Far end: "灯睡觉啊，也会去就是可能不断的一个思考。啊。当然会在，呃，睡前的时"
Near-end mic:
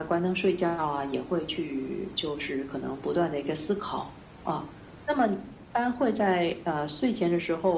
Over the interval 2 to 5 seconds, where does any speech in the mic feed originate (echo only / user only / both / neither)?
echo only